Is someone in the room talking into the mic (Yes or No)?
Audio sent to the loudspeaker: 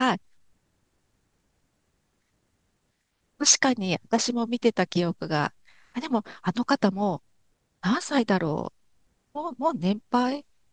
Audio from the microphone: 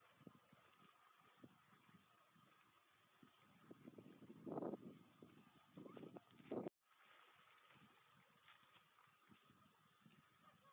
No